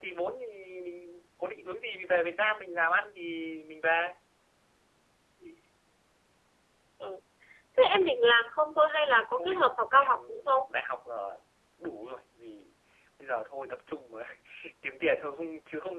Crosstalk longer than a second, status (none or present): present